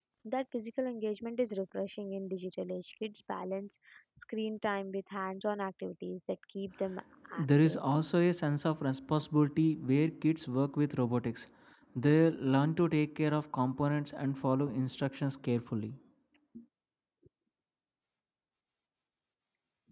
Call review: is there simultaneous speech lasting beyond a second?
No

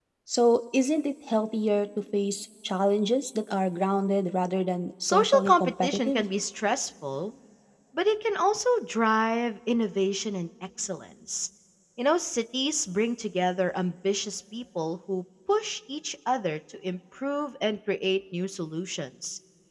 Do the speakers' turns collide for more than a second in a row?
Yes, from 5.0 s

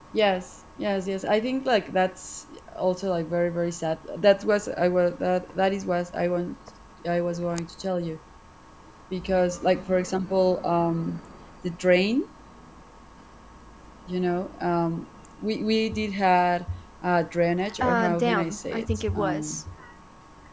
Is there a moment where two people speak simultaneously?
Yes, from 17.6 s

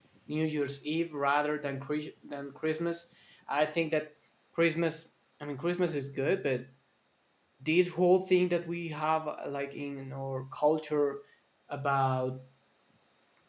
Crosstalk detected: No

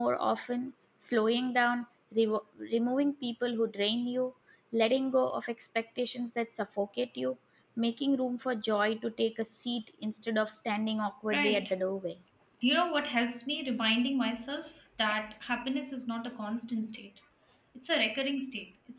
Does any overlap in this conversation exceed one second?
No

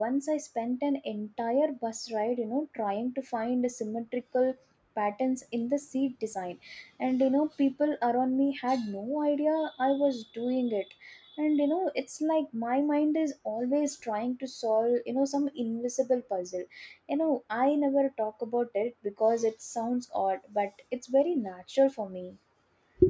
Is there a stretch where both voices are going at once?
No

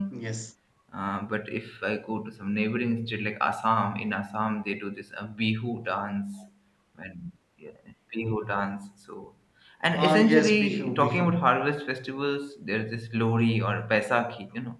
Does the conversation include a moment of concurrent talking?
Yes, from 10.0 s

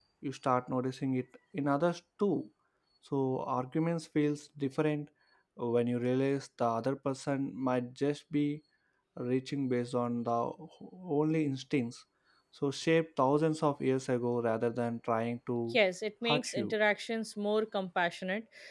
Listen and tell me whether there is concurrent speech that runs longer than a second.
No

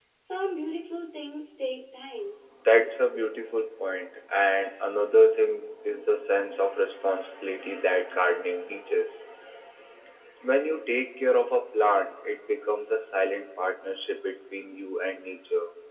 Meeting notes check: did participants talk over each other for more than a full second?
No

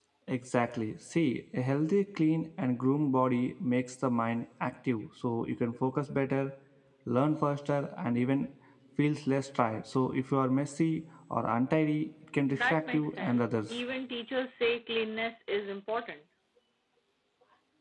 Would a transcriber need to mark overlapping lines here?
Yes, from 12.5 s

